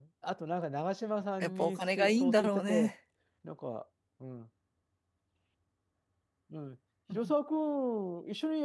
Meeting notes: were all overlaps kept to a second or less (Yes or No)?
No